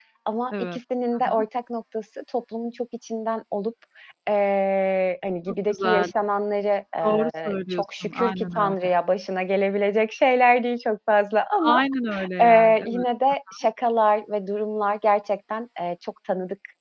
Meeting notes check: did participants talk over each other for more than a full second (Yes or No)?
Yes